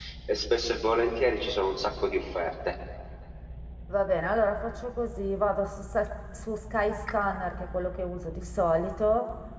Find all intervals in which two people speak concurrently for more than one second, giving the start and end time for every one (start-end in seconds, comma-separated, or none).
none